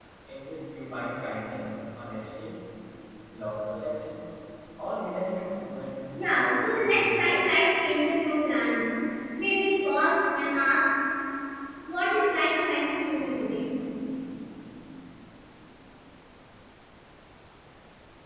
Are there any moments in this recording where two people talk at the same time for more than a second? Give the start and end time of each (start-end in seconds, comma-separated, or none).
6.2-7.4